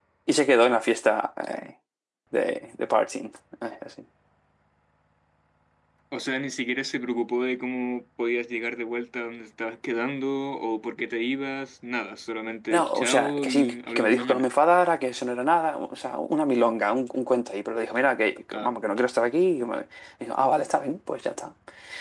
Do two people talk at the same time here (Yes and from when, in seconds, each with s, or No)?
Yes, from 12.7 s